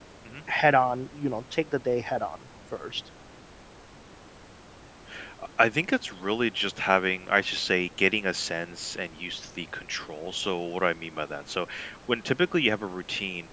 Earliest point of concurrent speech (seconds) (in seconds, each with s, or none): none